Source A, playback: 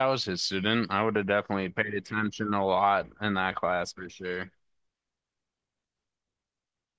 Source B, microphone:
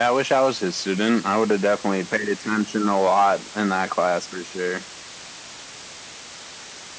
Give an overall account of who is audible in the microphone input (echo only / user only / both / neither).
echo only